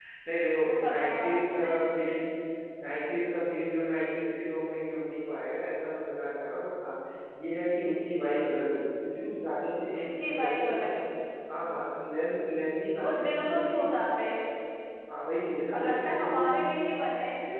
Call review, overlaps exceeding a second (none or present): present